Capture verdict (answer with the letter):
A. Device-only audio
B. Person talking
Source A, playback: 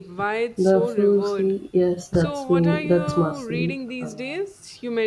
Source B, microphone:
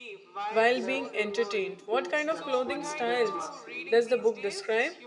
B